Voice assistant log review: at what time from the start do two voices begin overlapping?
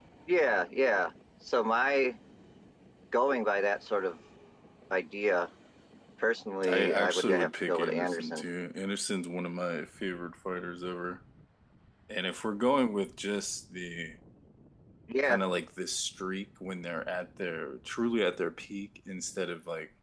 6.7 s

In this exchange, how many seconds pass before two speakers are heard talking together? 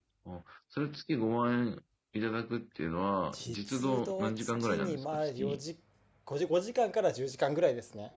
3.3 s

